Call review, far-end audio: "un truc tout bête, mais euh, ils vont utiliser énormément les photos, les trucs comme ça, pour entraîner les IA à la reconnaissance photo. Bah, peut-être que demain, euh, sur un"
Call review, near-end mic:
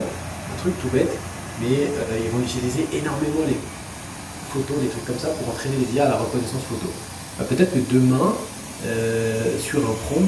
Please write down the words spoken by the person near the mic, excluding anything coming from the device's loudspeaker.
none

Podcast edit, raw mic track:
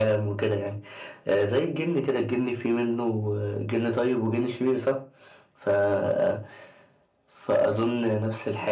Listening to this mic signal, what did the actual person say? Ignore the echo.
none

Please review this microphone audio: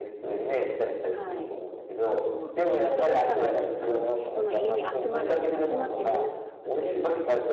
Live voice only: はい。こう、やっぱどっかの、あの人の家に集まる、集まってみんなでなんかするとか、

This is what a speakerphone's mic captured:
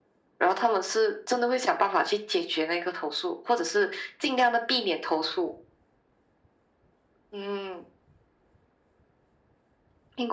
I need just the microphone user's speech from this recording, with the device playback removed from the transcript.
none

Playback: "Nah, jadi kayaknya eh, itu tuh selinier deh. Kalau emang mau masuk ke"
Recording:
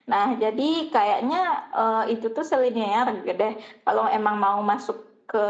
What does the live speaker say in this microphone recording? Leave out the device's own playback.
none

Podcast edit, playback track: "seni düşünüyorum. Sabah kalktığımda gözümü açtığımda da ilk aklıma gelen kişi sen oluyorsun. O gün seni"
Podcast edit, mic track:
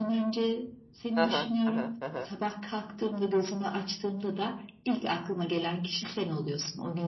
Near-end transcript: Aha, aha, aha.

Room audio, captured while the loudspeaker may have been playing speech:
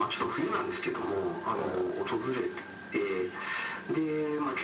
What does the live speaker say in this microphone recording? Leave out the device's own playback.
まあ

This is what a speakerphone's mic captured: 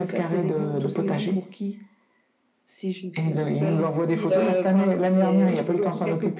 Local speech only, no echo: Et, euh,

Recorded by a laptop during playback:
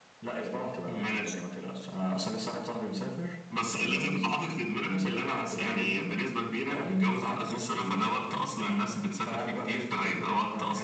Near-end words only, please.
none

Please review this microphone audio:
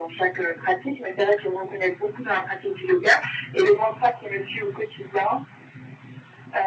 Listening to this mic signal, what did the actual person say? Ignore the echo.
none

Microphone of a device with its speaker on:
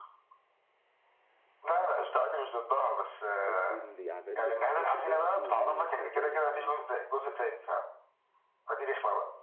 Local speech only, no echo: على طول يعمل له المهمات بتاعته ويشغل معاه

